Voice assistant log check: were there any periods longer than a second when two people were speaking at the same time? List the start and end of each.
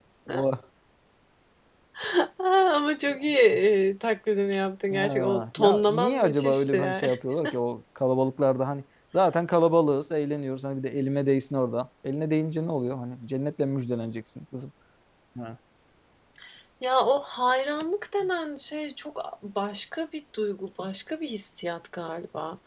4.9-7.1

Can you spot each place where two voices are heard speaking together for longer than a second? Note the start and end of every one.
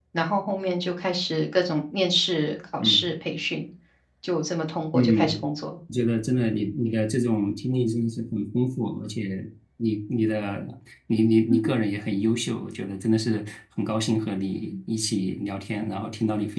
none

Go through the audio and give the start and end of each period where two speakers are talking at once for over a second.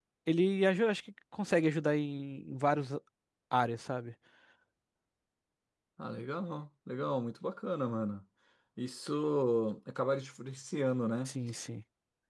none

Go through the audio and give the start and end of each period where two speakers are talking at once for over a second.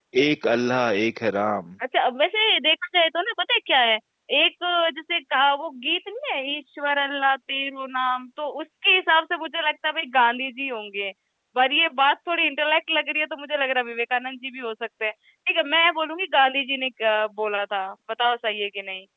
none

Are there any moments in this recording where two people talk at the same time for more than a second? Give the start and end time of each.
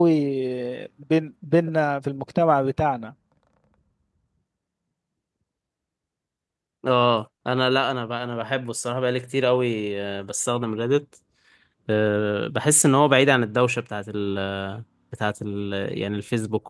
none

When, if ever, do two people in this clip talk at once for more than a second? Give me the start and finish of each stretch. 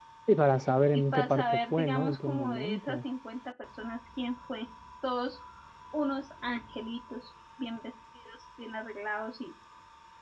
0.9-3.0

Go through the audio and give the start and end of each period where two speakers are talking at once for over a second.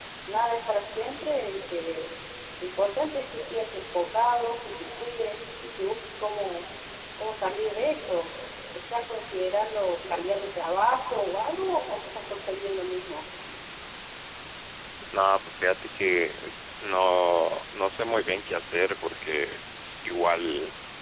none

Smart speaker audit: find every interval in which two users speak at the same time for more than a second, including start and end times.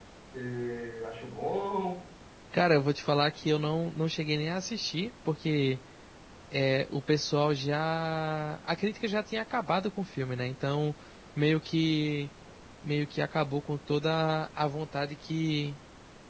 none

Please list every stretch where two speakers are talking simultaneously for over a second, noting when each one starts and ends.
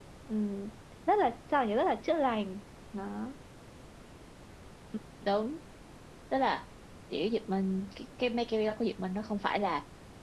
none

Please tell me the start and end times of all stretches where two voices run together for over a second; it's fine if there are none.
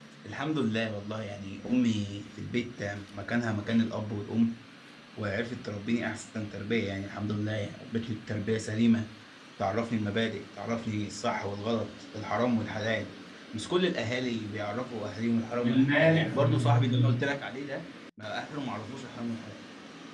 15.6-17.2

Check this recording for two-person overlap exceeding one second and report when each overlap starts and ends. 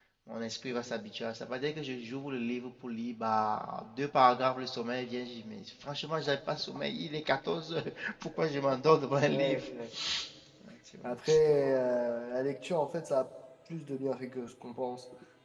none

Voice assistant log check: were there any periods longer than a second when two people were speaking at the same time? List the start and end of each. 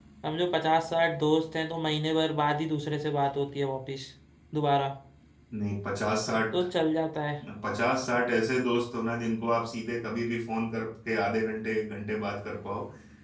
none

